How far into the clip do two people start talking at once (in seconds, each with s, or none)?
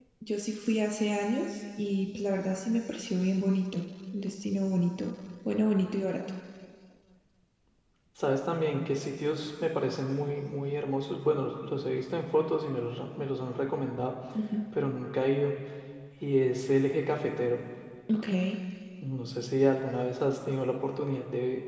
none